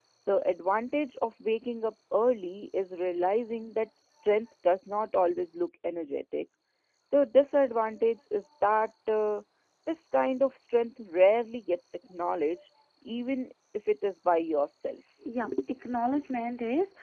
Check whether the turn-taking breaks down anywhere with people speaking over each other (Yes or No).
No